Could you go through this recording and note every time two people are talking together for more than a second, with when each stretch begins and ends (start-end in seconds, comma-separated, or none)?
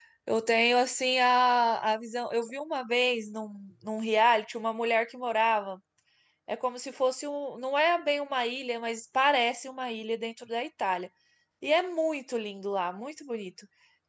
none